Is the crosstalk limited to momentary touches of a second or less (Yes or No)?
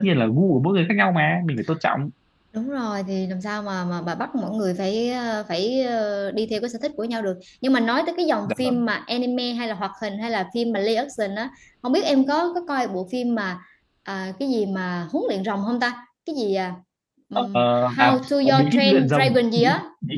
No